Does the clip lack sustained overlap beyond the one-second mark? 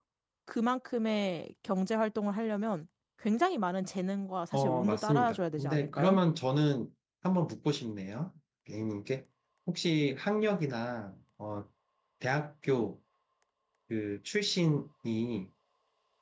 No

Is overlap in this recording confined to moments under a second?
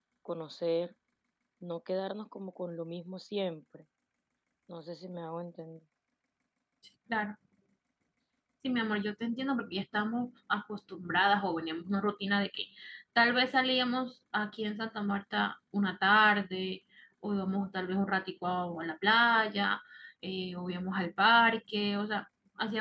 Yes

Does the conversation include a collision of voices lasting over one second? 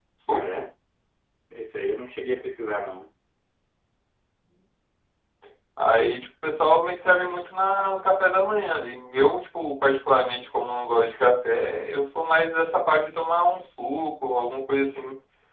No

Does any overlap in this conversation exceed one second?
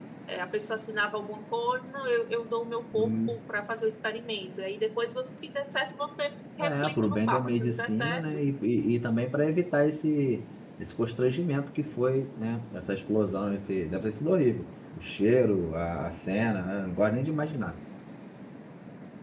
Yes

